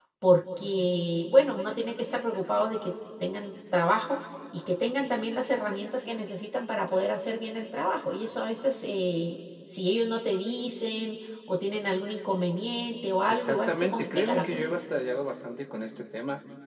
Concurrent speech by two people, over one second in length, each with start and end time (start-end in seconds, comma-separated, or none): 13.3-14.6